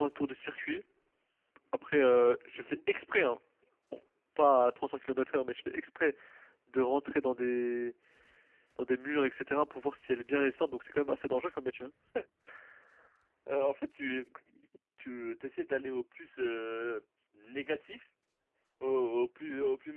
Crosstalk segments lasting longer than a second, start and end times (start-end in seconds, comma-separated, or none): none